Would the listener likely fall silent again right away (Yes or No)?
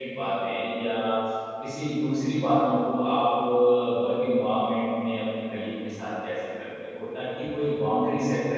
Yes